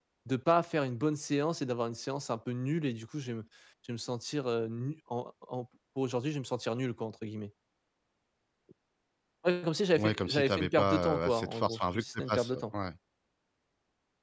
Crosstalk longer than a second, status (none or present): present